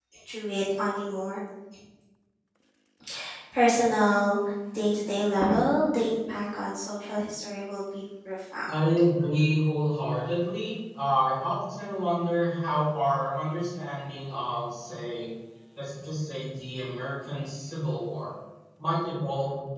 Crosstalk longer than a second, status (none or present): none